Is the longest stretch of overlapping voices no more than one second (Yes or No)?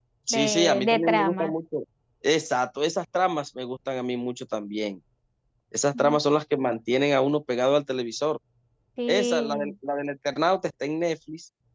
No